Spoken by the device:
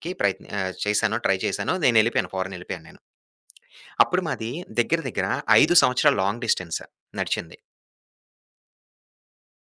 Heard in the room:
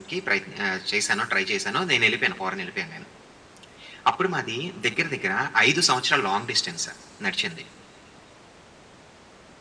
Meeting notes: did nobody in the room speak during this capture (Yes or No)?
Yes